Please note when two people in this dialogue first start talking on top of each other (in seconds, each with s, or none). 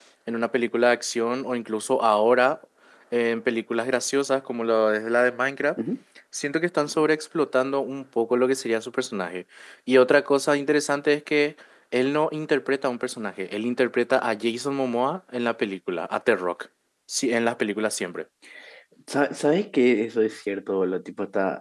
none